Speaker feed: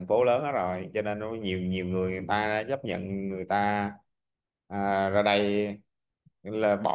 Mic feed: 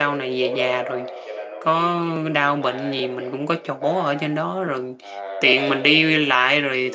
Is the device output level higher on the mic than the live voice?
No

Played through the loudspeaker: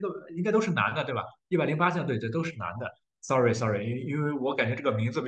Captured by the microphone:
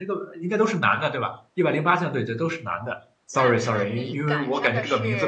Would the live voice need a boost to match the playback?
Yes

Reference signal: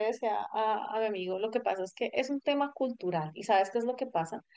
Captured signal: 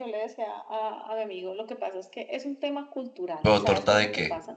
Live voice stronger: Yes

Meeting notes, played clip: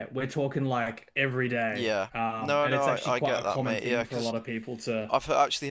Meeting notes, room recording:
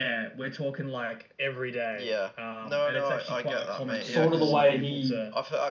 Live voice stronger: Yes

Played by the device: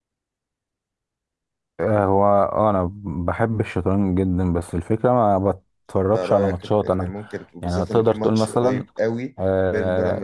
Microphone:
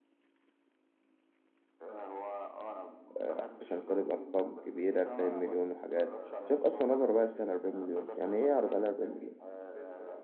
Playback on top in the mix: No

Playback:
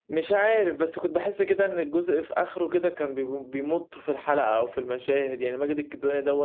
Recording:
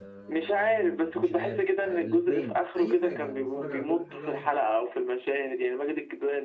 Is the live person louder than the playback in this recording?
No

